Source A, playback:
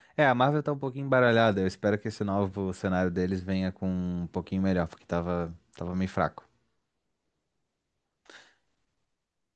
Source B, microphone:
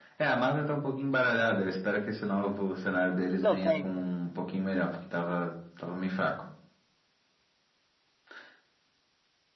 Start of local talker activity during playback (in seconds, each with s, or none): 3.4 s